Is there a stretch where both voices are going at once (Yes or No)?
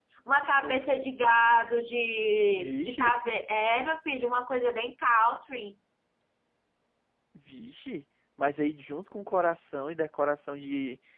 Yes